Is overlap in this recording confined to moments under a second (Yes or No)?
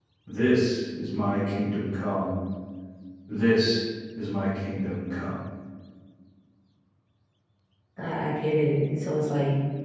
Yes